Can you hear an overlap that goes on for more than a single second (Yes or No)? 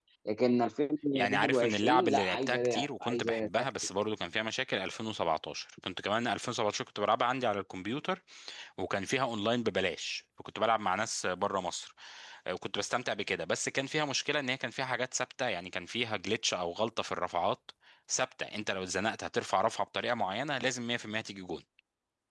Yes